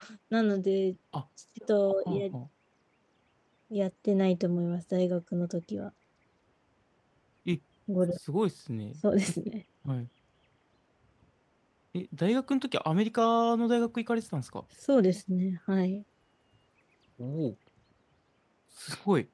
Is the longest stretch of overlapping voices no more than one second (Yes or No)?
Yes